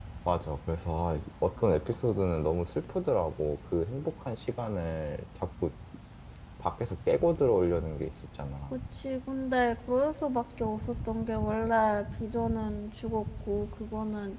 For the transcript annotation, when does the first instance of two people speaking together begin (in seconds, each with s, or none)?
none